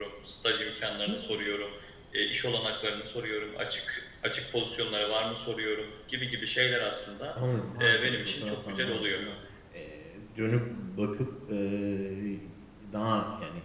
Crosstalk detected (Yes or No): Yes